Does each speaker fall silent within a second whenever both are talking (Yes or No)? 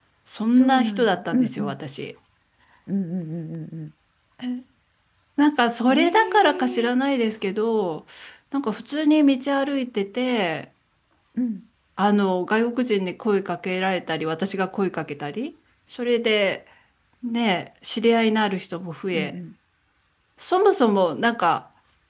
No